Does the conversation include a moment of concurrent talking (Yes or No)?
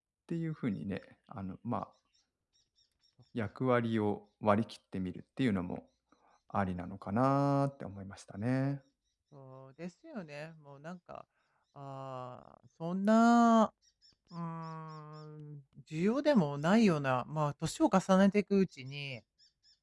No